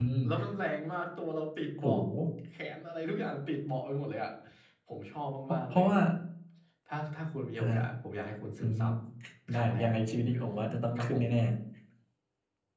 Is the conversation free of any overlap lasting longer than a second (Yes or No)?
Yes